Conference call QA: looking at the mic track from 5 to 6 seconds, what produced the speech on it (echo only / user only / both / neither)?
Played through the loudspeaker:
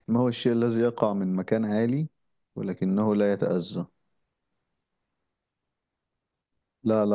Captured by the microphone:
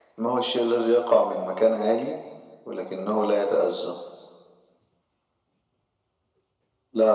neither